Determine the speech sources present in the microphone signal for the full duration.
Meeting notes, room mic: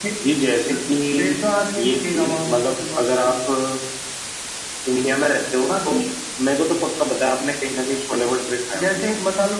echo only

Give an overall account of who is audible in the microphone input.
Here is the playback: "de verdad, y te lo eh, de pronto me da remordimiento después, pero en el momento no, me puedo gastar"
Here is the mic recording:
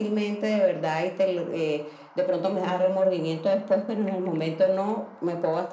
echo only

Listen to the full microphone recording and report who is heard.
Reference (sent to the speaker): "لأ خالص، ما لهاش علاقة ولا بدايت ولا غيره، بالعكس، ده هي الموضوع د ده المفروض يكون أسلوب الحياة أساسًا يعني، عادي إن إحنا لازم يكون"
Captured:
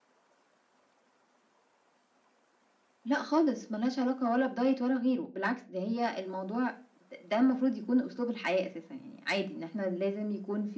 echo only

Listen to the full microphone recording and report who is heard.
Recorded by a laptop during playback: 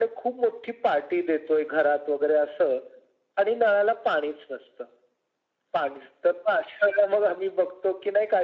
echo only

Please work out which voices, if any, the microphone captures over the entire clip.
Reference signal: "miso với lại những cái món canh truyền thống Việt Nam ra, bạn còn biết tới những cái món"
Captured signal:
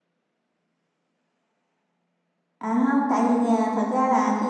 user only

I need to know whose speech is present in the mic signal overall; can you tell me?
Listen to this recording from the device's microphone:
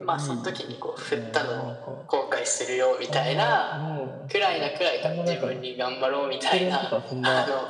both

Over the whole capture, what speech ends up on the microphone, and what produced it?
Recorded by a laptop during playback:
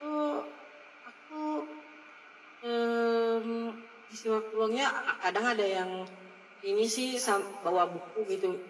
echo only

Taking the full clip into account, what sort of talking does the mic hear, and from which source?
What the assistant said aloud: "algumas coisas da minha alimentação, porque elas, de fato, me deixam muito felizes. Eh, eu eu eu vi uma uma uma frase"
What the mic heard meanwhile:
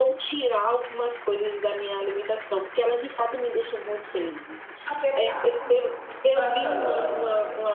both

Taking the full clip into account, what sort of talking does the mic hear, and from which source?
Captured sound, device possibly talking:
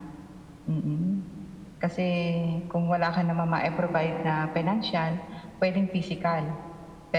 echo only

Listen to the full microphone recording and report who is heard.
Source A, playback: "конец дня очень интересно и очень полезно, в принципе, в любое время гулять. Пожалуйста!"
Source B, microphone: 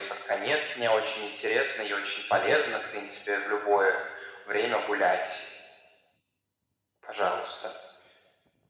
echo only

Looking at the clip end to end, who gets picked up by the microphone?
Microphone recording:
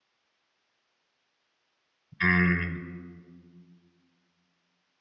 user only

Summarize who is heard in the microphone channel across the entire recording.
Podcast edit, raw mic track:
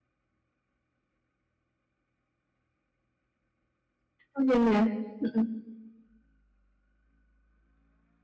user only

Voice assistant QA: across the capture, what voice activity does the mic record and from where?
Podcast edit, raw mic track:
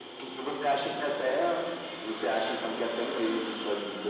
echo only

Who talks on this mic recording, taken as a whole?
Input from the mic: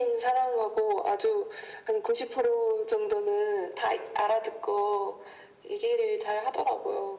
echo only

